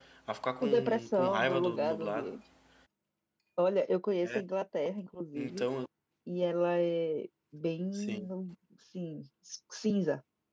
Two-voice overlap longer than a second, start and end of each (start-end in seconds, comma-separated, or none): 0.6-2.3